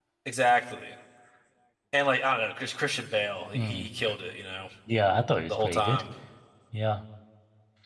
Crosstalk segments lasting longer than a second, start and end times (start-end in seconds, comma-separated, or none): none